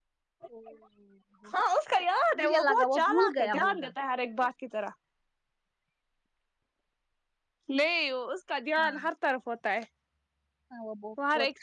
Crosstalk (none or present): present